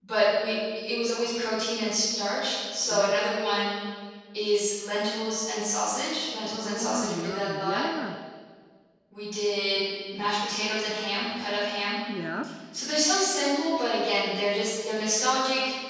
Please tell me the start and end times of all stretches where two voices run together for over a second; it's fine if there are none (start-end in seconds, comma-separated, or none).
6.5-7.8